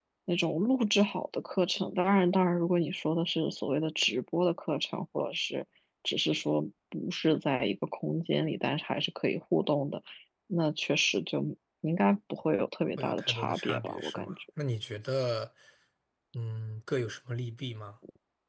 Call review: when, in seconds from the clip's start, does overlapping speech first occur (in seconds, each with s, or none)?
13.0 s